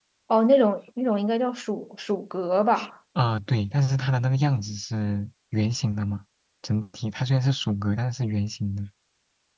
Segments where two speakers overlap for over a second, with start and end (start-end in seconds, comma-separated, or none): none